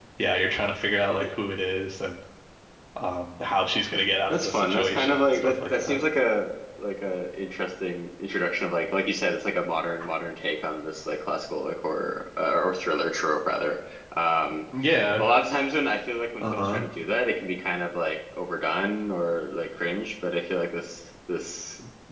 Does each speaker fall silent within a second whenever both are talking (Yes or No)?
No